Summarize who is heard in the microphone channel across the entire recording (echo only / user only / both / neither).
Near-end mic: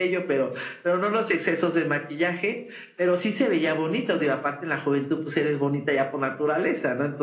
echo only